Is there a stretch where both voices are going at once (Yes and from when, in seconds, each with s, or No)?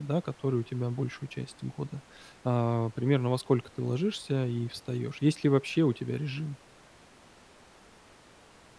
No